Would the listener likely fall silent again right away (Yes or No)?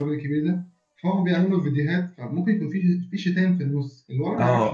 No